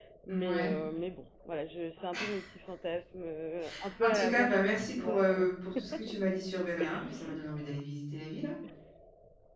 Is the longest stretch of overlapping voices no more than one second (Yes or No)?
No